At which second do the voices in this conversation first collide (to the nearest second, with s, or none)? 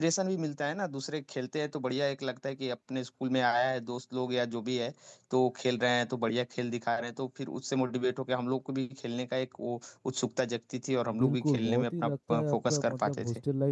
11 s